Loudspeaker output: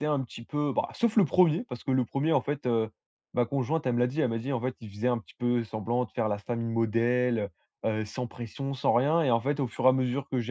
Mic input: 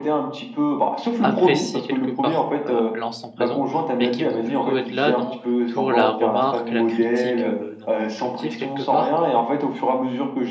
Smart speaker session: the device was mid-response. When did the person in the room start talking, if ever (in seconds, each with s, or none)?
1.2 s